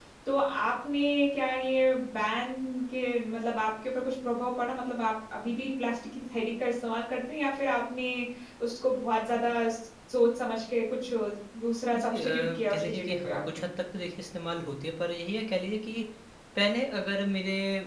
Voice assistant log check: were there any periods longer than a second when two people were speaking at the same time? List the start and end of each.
12.0-13.6

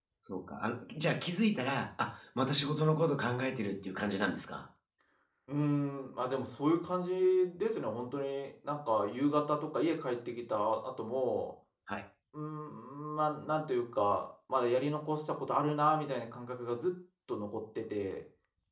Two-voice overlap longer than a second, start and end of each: none

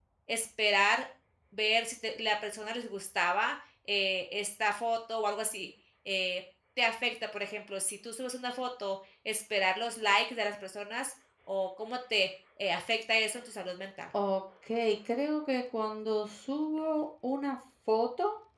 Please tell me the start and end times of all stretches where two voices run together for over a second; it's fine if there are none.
none

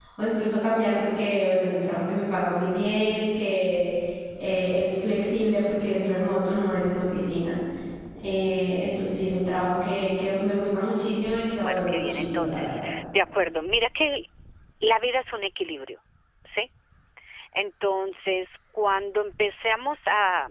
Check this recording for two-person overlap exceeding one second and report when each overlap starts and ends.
11.6-12.8

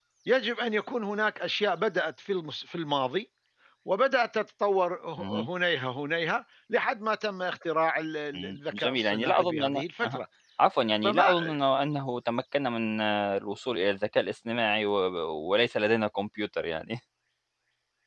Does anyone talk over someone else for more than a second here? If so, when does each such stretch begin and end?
8.3-10.2

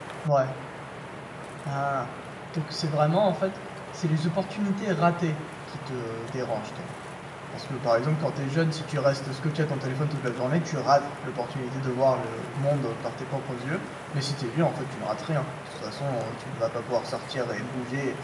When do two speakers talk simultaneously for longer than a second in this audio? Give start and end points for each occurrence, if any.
none

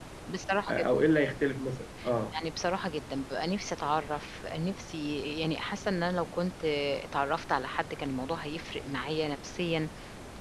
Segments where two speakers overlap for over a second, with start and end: none

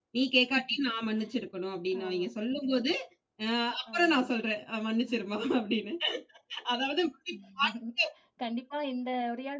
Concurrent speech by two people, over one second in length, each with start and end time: none

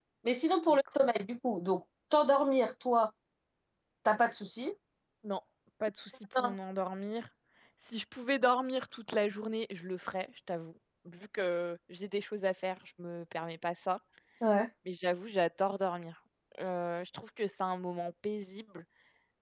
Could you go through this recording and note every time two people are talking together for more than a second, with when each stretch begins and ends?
none

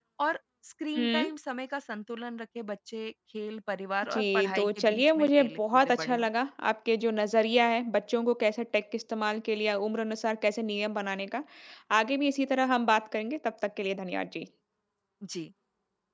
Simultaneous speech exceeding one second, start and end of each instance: 4.1-6.3

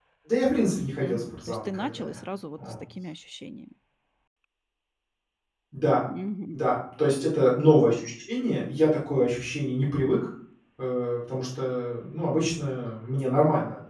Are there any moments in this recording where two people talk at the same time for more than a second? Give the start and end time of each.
0.9-2.2

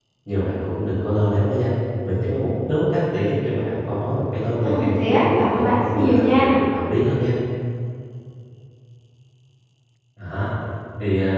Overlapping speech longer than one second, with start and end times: 4.6-6.6

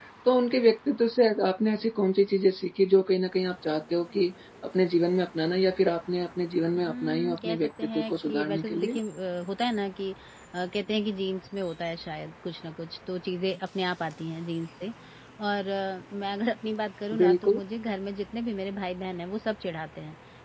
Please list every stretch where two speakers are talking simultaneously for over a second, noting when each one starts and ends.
6.8-9.0

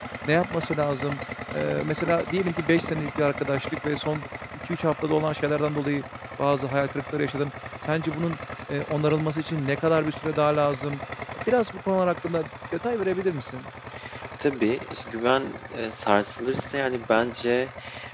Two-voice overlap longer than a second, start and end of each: none

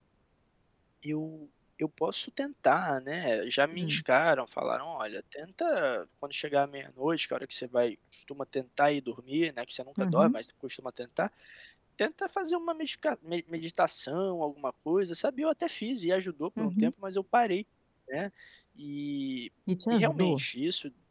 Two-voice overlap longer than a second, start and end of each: none

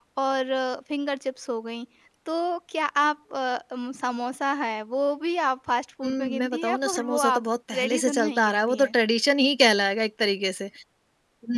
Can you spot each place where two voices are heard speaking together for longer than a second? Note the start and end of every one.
6.0-8.9

